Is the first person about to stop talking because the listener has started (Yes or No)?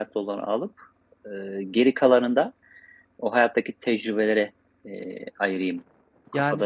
Yes